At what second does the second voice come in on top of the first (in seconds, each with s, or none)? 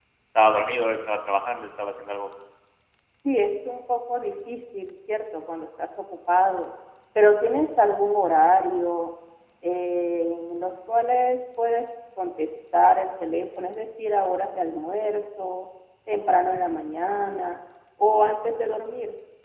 none